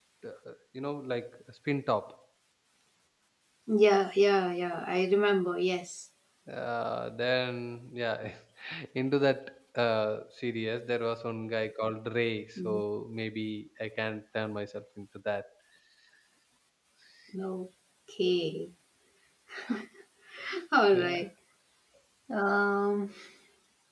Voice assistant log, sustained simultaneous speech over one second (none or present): none